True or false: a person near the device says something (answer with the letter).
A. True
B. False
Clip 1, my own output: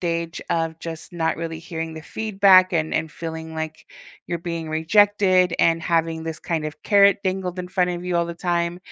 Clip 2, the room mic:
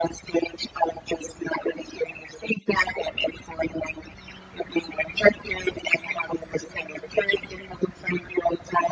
B